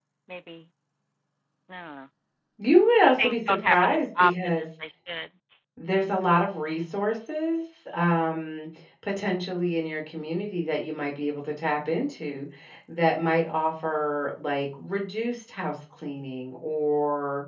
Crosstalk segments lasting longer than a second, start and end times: 3.2-4.6

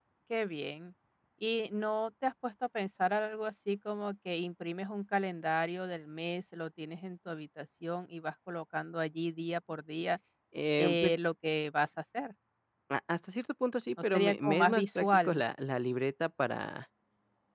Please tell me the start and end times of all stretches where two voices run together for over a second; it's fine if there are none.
14.0-15.4

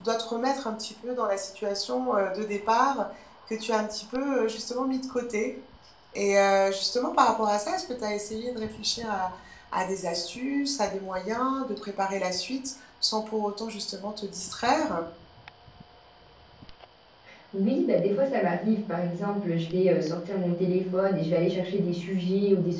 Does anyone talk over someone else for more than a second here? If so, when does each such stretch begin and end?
none

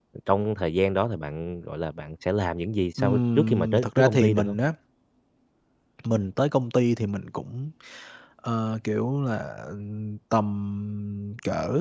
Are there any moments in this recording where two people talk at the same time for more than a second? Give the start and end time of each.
3.0-4.6

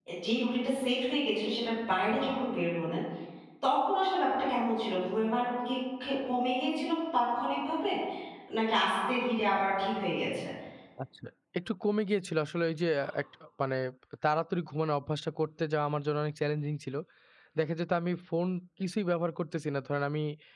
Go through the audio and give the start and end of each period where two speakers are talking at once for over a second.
none

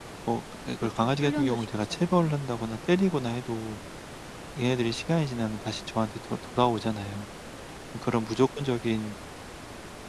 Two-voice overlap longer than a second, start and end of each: 1.0-2.3

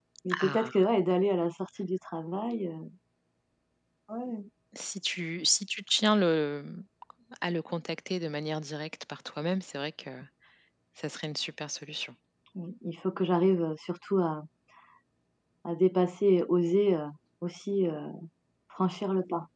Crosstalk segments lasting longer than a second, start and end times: none

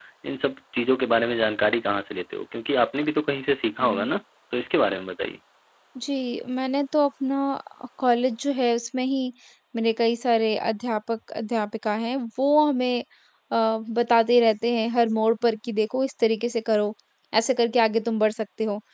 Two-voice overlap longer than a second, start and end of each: none

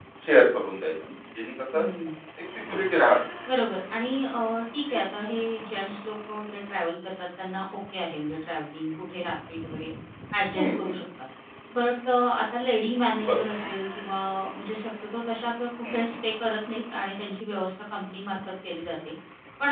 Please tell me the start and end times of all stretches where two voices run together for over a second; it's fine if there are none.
none

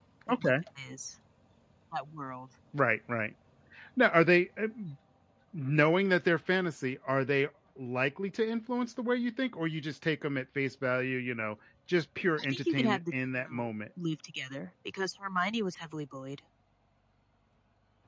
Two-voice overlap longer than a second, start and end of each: 12.4-13.7

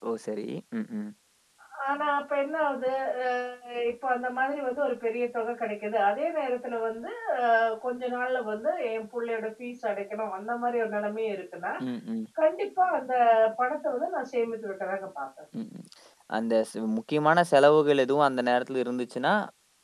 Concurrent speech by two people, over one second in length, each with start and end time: none

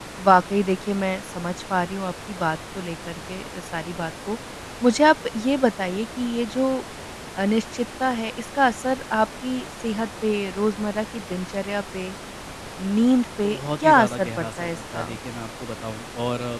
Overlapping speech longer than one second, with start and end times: 13.4-15.1

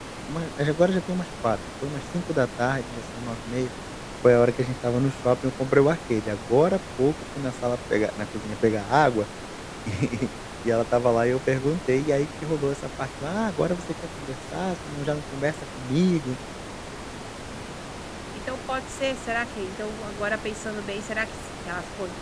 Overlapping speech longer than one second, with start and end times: none

